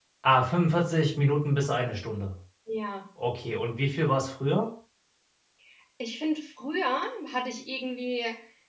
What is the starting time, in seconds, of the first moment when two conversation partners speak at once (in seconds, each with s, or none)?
none